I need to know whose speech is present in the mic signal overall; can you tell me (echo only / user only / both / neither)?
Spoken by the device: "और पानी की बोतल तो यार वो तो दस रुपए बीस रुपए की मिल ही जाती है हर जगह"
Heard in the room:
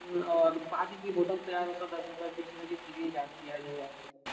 echo only